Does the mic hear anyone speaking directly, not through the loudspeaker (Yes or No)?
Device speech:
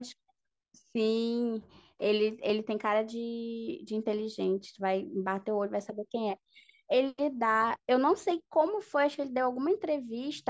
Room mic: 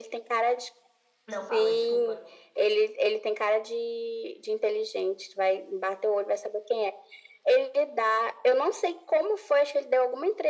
Yes